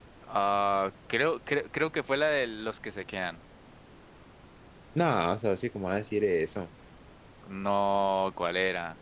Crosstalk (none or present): none